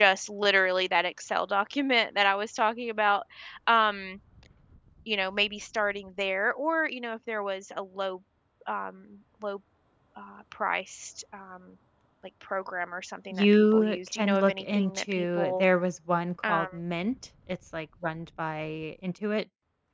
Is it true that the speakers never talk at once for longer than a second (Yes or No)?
No